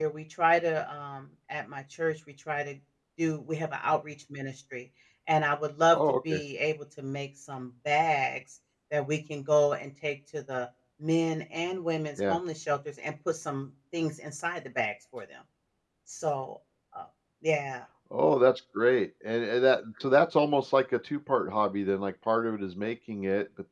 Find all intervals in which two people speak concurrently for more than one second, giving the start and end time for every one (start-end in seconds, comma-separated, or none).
none